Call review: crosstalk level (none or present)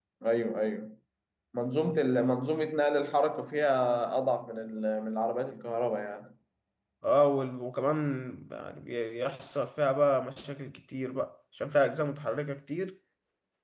none